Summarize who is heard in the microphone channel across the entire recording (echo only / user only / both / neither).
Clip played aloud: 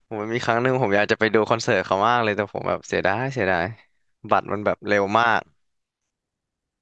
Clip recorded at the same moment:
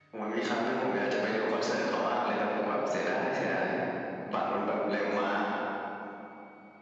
echo only